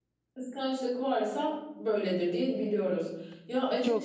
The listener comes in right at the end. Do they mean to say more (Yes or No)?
Yes